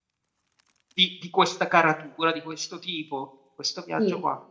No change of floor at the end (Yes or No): No